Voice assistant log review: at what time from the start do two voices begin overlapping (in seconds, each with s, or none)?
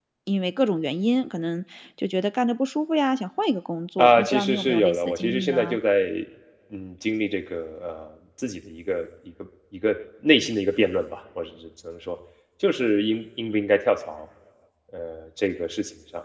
4.0 s